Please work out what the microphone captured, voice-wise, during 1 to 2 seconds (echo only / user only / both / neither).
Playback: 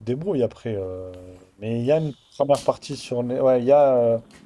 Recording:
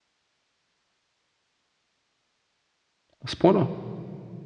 neither